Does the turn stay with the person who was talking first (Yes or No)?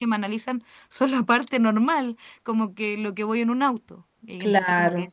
Yes